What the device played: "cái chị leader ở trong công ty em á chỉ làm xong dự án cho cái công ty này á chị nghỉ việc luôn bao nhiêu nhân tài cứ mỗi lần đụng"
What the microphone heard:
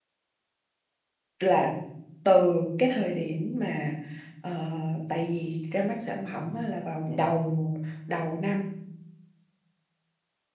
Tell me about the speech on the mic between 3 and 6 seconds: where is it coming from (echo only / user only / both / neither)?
user only